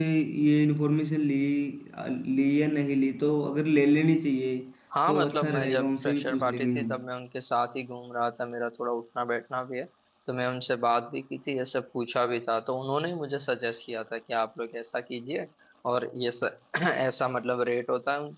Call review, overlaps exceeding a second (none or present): present